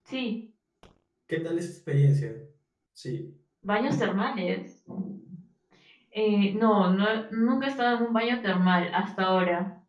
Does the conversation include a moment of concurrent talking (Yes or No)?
No